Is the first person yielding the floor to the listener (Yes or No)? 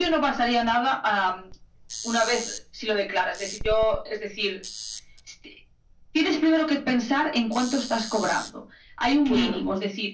No